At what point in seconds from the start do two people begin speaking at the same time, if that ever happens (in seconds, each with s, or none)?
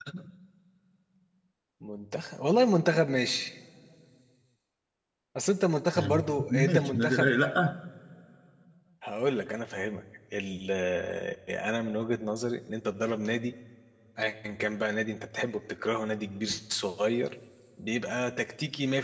6.0 s